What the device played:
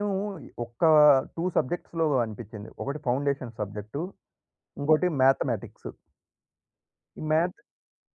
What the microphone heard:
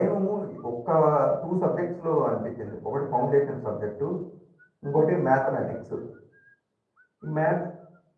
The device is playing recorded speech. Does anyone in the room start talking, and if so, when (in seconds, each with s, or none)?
none